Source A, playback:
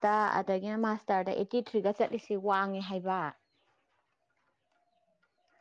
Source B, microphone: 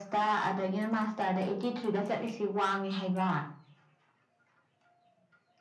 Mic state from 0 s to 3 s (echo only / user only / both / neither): echo only